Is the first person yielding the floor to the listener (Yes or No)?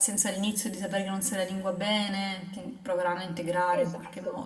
Yes